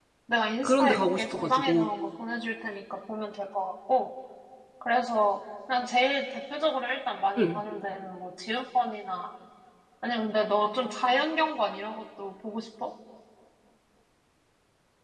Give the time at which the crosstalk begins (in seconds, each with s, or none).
0.6 s